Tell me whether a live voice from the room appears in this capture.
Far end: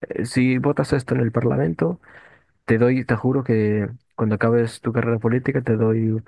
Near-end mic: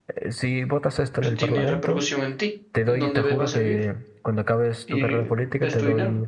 Yes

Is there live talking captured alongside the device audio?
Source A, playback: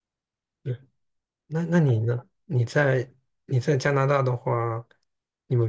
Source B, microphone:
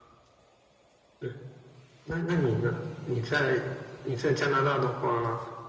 No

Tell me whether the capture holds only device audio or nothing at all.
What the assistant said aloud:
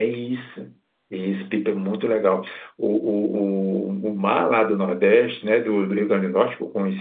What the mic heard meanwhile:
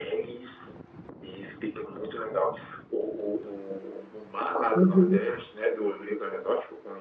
No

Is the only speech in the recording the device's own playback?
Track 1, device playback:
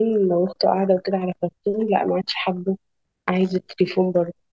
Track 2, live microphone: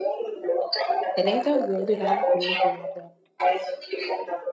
No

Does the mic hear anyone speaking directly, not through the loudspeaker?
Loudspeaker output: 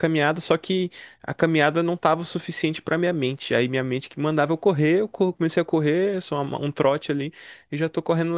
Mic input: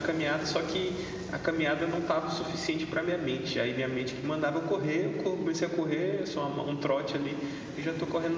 No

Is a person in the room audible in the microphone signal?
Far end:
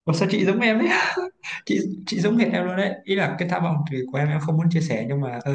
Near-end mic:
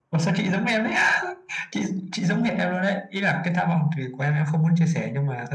No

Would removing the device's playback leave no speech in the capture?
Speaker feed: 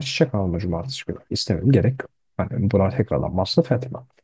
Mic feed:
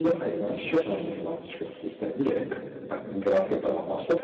Yes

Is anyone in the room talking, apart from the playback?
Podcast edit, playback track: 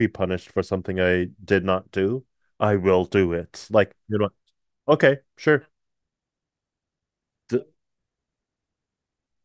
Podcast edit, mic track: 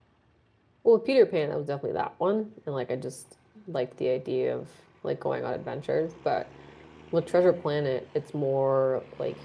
Yes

